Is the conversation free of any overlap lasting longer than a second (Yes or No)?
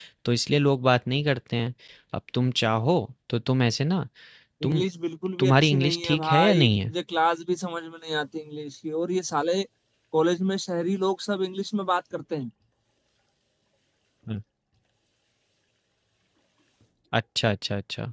No